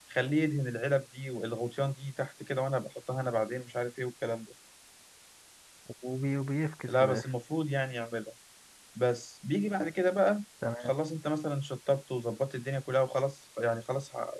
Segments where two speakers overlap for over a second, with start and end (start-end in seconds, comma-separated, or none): none